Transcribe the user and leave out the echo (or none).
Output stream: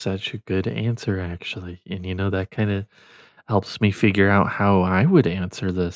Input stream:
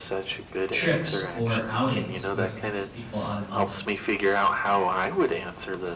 trips or outings with these people i love